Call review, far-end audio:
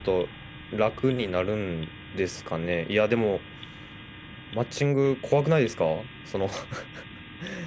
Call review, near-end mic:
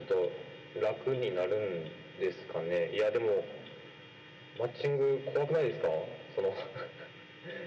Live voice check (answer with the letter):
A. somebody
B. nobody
B